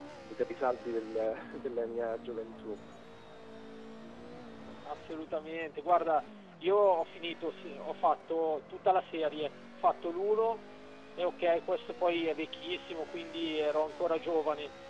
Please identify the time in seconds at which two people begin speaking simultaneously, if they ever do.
none

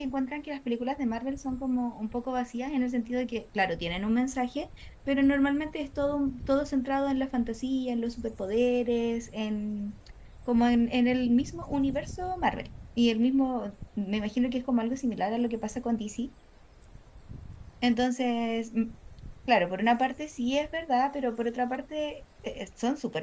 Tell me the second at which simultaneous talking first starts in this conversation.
none

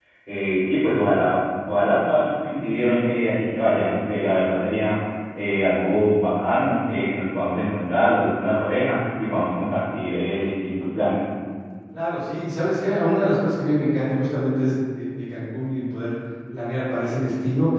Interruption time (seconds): none

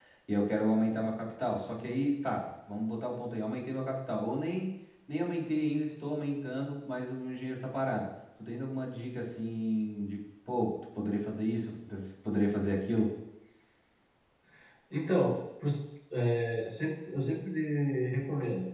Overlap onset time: none

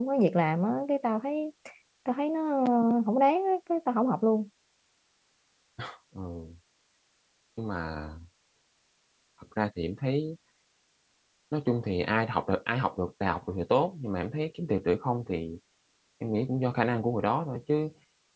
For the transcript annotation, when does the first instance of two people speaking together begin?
none

